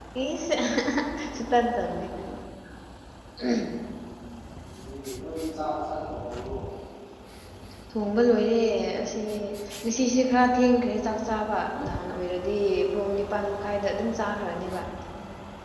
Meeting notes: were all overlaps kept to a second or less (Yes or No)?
Yes